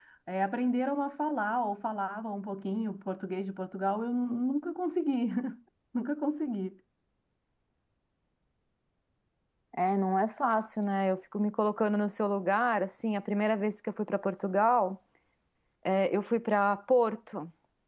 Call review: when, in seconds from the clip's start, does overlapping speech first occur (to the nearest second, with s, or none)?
none